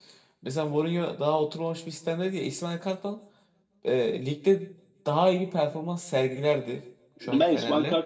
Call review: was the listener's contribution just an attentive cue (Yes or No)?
No